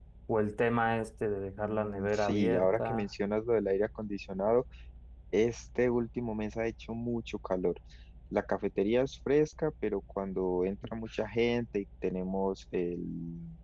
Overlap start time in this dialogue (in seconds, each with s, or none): 1.5 s